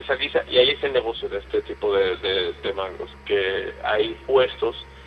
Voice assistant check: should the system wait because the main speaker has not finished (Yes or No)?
Yes